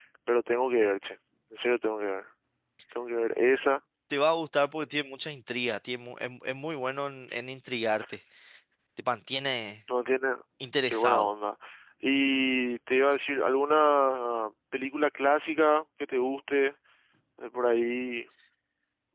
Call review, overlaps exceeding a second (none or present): none